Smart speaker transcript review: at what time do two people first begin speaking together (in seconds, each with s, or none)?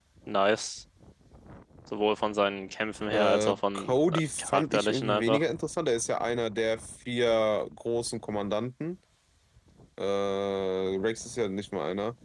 3.1 s